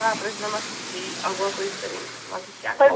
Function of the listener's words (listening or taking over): taking over